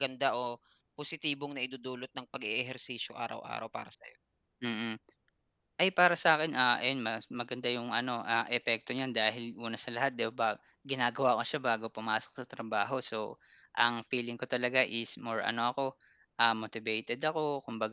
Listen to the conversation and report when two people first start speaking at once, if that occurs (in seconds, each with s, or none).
none